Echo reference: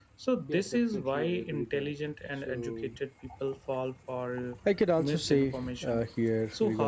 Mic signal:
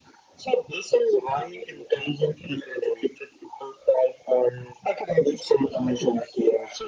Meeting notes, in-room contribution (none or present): none